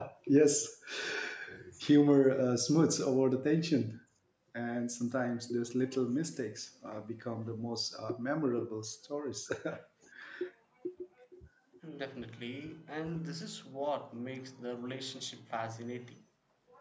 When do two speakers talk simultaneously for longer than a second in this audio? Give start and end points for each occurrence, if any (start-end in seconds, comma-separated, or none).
none